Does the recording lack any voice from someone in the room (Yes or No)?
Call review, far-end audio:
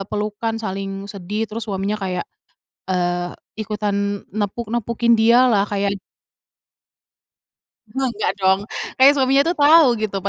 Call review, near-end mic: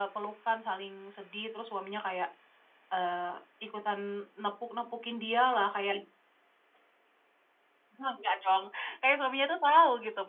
Yes